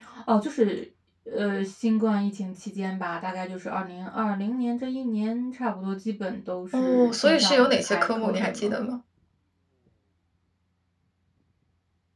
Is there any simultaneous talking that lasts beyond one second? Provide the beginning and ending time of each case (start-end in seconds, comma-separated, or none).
6.7-8.7